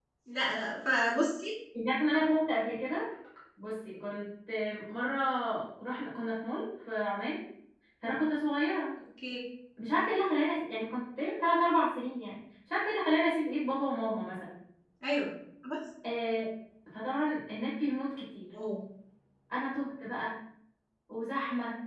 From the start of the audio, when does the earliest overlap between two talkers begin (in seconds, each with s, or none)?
none